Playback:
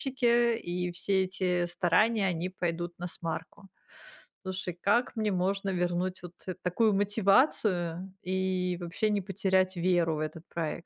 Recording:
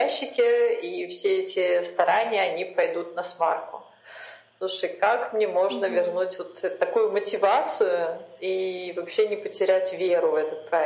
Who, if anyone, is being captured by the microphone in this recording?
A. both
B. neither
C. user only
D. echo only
A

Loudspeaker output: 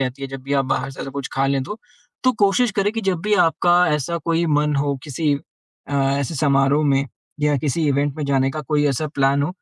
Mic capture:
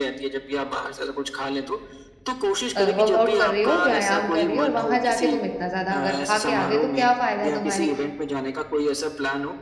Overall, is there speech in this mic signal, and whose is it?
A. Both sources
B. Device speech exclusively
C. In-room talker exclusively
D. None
A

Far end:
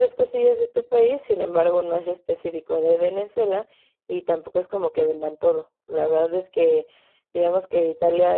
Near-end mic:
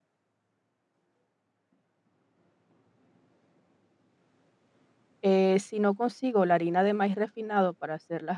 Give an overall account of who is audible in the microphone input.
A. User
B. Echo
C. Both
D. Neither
A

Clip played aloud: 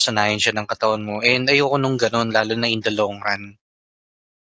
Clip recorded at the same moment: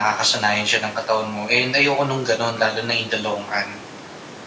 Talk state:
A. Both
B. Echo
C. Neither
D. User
B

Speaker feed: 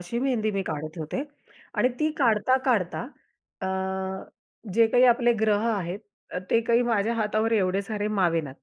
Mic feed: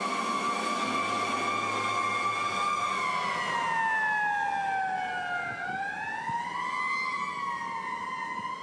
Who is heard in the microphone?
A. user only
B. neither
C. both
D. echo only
B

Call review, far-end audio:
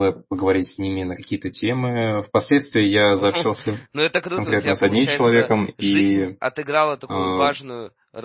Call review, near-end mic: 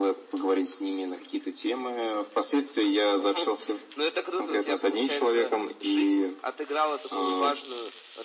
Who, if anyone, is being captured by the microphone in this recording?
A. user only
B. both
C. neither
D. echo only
D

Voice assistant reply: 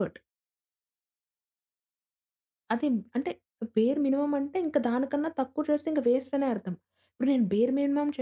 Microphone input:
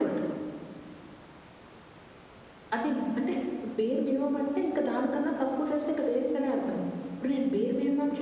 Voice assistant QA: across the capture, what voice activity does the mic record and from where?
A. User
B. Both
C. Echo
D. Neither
C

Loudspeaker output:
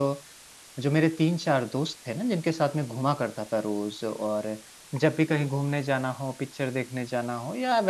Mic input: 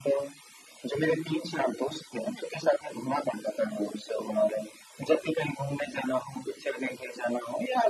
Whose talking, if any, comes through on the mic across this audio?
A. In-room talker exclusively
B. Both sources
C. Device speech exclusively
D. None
C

